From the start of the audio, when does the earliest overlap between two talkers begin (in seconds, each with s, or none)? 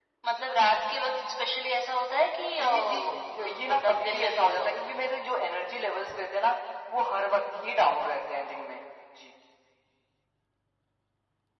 2.6 s